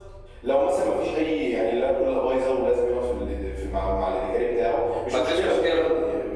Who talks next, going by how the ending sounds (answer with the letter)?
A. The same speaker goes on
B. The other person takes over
A